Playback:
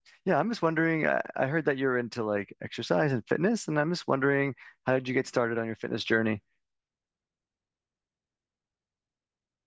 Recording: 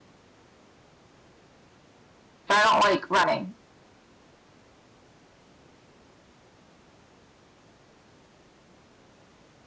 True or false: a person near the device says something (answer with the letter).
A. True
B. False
A